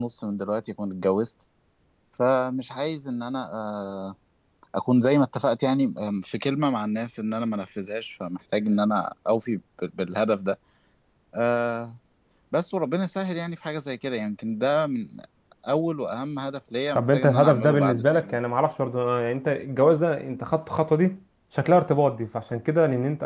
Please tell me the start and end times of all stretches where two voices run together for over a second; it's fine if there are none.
16.9-18.4

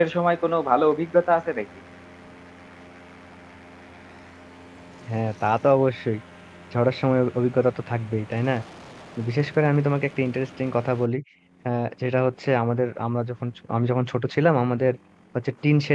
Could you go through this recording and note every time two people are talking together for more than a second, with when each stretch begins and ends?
none

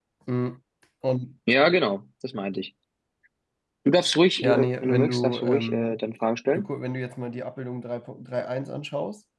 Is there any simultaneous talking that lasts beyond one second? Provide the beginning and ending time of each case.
4.4-6.0

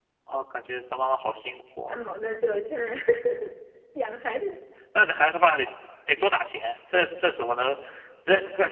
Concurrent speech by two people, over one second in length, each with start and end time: none

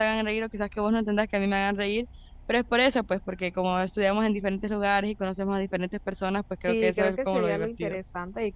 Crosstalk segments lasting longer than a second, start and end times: 6.7-8.0

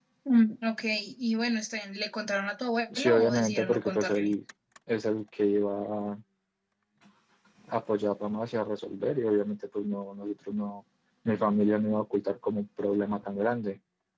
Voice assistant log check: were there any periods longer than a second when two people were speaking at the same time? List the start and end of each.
3.0-4.3

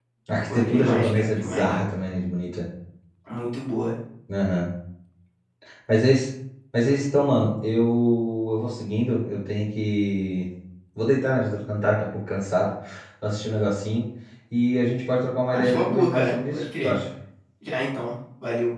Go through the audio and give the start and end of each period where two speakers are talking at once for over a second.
0.5-1.8, 15.5-16.9

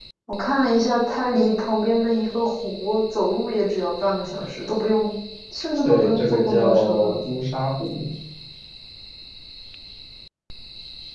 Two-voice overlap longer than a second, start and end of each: 5.8-7.2

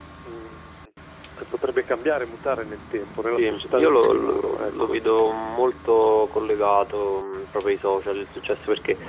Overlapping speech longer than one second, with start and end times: 3.3-5.0

